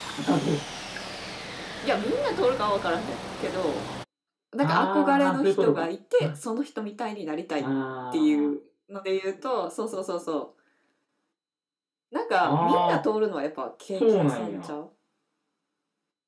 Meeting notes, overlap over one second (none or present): present